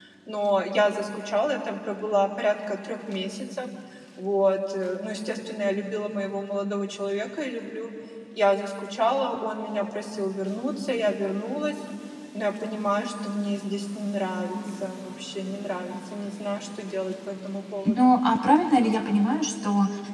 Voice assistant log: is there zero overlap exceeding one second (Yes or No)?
Yes